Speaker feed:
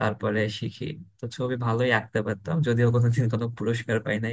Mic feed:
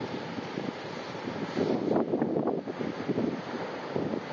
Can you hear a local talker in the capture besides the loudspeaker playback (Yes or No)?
No